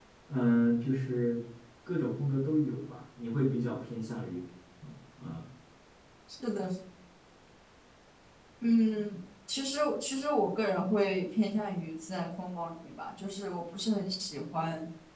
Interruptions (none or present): none